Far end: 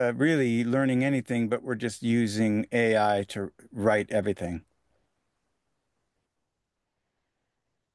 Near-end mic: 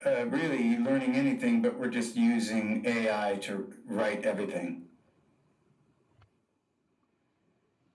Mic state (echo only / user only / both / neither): echo only